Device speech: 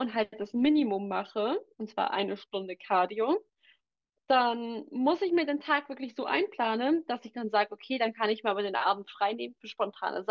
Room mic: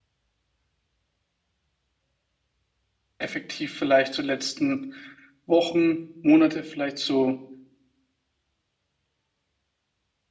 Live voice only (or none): effektiv vielleicht so letzten Wochen, Monate vielleicht so